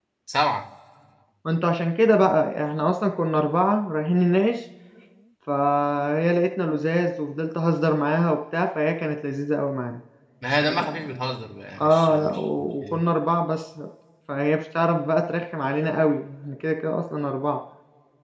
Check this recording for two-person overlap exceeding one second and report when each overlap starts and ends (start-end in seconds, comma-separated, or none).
11.8-13.0